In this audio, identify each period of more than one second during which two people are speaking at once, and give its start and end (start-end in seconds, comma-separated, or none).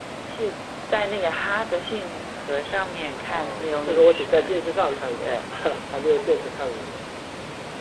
3.3-4.5